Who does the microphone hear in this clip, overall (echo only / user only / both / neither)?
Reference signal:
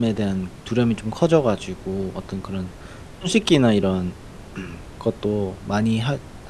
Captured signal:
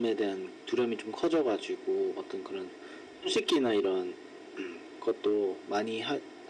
echo only